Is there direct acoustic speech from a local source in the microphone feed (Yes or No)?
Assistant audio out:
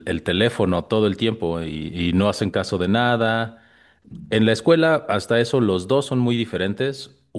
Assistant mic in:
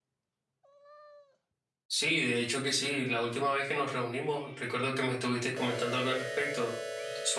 Yes